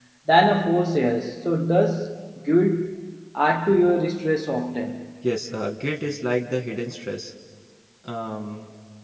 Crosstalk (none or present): none